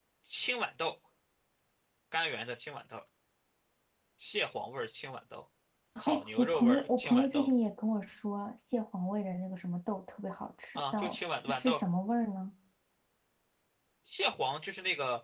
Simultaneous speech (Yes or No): Yes